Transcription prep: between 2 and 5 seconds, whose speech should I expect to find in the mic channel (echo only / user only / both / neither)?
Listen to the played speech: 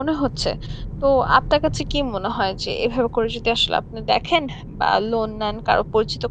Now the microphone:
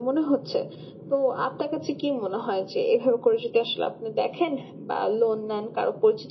echo only